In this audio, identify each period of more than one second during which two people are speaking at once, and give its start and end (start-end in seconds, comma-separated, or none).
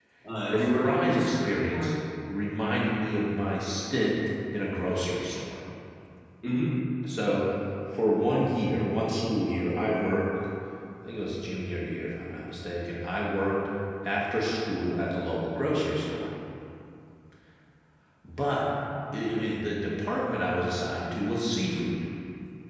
0.5-1.9